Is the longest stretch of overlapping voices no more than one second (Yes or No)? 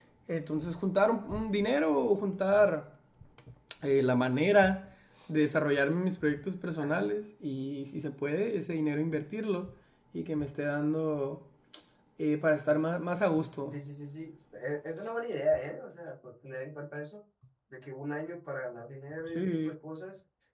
Yes